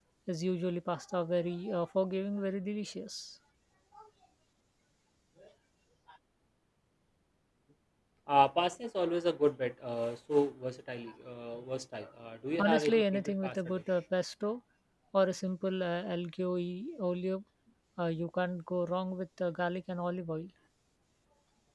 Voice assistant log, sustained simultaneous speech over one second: present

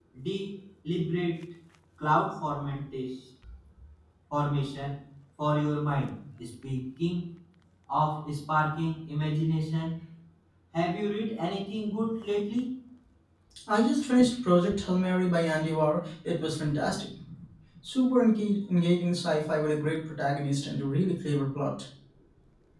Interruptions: none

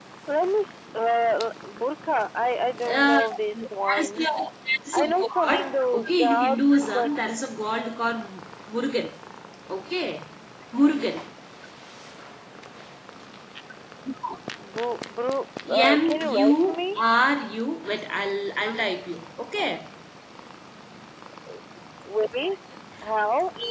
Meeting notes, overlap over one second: present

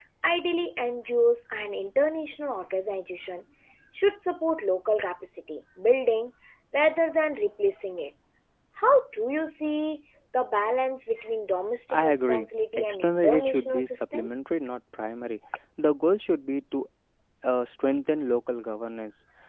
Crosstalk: present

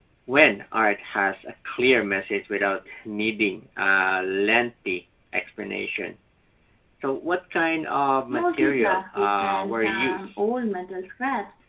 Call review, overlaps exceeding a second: present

